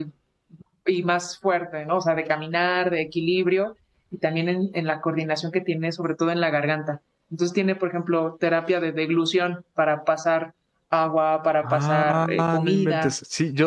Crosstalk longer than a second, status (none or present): present